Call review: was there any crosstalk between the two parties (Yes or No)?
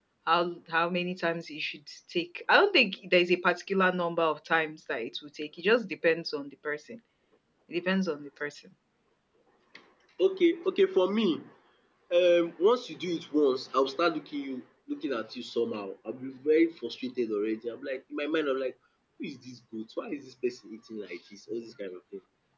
No